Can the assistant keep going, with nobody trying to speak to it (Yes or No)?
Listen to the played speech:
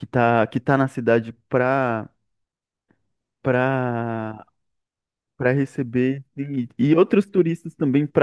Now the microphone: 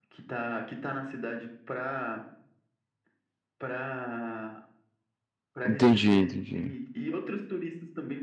No